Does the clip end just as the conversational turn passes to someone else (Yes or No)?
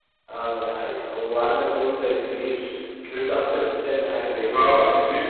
Yes